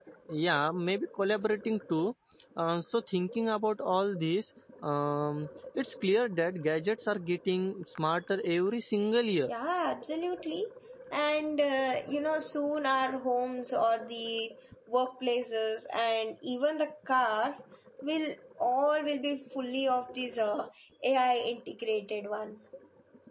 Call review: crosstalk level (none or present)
none